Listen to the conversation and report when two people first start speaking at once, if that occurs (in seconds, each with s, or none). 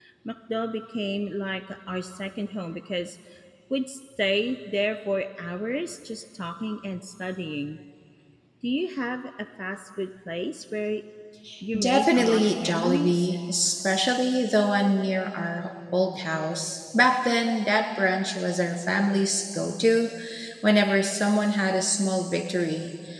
11.8 s